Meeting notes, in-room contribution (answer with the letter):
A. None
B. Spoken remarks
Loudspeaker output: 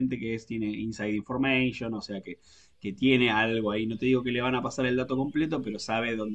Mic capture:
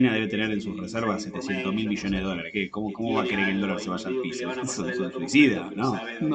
B